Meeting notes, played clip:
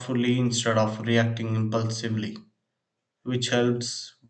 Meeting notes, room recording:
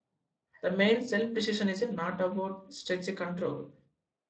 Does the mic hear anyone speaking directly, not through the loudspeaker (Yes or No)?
Yes